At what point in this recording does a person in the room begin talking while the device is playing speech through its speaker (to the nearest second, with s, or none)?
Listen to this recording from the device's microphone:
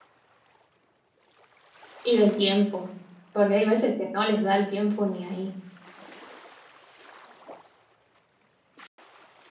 2 s